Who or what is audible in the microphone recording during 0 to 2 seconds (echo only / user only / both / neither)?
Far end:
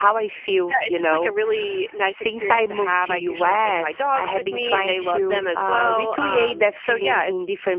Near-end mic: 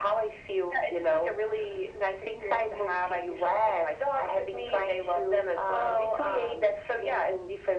echo only